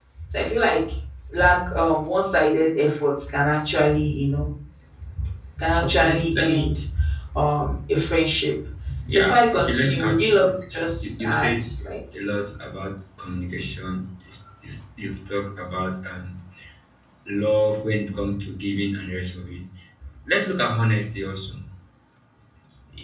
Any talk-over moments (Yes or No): Yes